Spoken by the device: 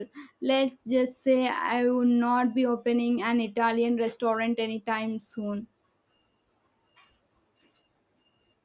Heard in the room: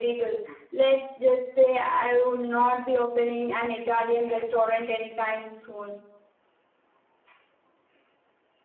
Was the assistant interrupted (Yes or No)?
No